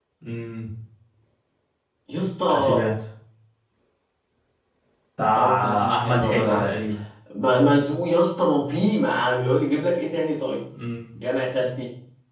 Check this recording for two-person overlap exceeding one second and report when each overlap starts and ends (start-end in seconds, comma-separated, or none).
5.3-6.7